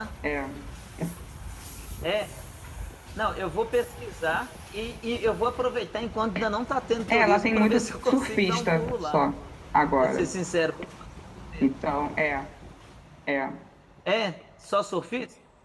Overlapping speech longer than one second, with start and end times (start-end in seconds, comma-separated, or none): 7.1-9.2